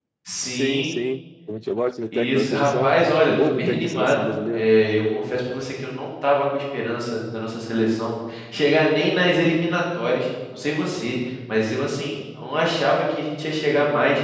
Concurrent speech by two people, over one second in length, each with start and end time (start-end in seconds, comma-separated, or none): 2.1-4.7